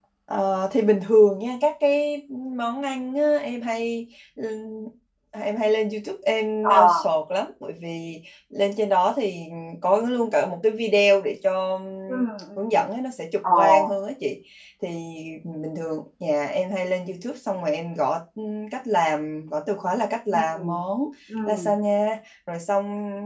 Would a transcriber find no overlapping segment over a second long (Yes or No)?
Yes